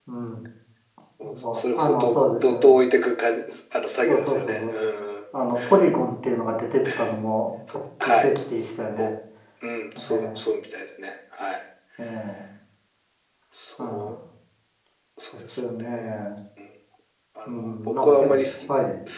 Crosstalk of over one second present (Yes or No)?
Yes